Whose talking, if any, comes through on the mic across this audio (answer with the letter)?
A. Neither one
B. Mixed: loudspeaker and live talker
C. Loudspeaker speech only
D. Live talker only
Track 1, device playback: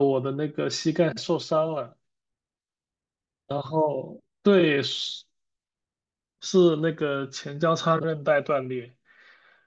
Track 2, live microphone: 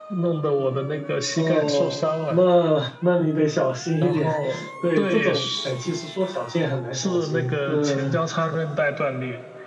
B